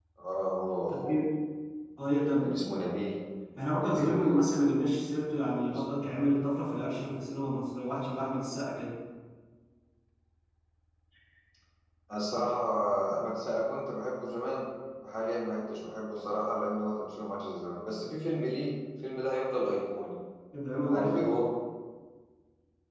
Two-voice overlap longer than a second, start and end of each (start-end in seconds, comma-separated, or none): none